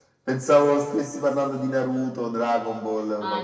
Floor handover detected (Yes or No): Yes